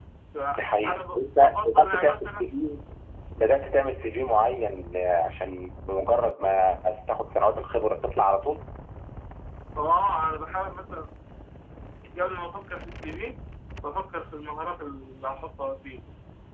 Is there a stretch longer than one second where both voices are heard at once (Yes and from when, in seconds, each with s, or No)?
Yes, from 0.6 s